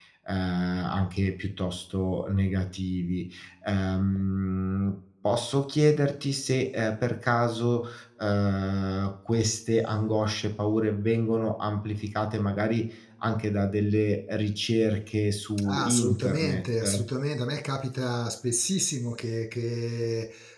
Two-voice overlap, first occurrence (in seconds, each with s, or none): 15.6 s